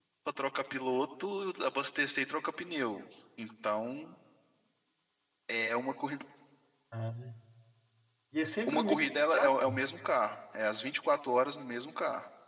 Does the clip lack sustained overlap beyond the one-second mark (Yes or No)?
No